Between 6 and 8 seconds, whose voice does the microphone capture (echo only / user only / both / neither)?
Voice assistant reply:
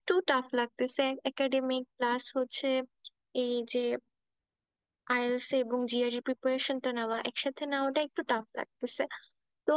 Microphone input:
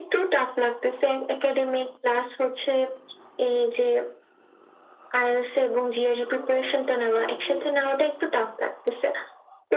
both